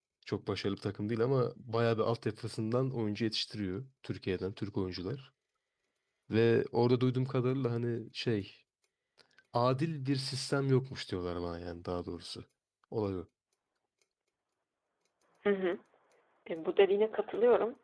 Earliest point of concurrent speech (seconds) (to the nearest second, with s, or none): none